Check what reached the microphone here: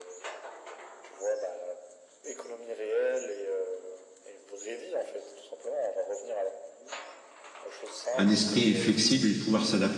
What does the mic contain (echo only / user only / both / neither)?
both